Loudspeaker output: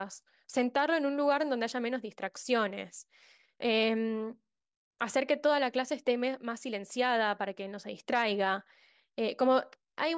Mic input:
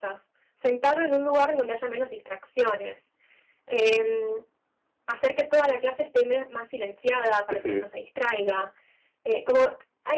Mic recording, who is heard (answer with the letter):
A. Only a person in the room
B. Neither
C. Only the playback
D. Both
D